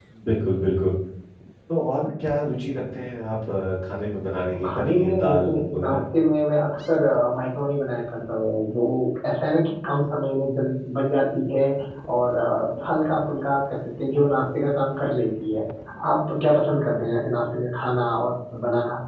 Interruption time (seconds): 5 s

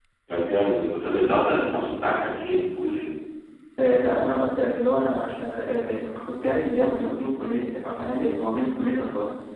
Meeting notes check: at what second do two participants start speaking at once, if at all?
none

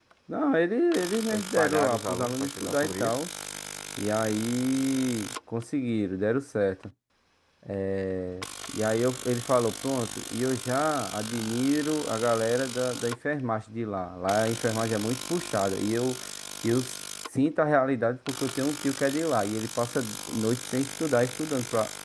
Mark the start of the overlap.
1 s

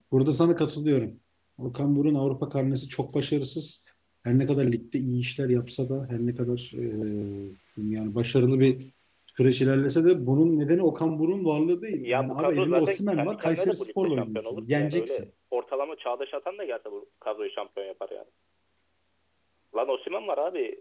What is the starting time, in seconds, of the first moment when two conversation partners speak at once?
12 s

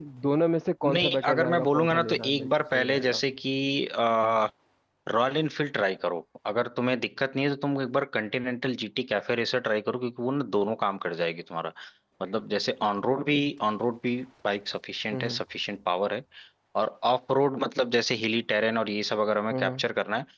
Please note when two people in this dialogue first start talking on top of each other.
1 s

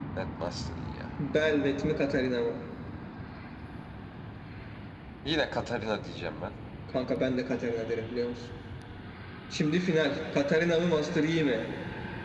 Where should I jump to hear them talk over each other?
none

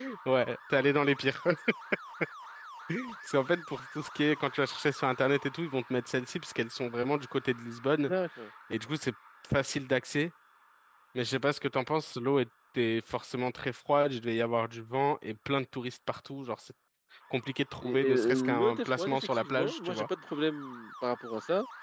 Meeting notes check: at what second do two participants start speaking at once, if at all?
18 s

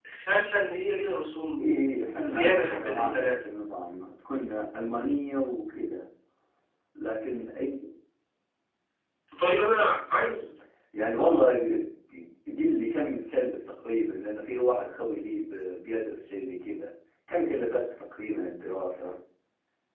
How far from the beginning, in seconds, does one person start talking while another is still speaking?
2 s

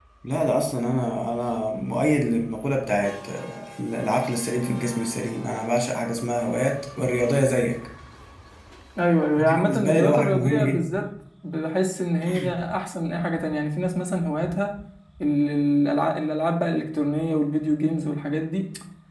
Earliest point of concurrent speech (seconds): 9 s

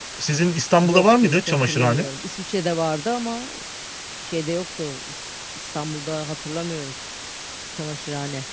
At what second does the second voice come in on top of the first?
1 s

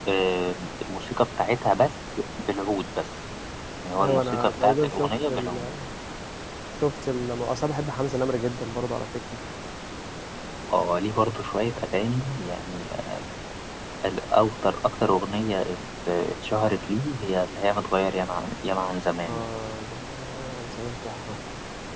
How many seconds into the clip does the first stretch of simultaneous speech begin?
4 s

